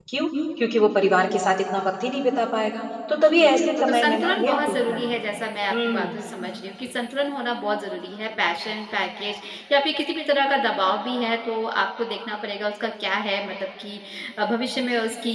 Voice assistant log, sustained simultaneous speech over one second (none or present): present